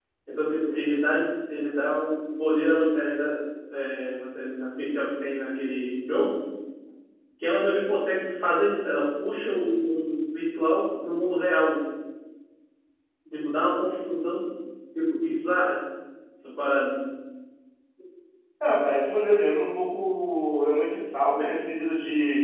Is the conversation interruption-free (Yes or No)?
Yes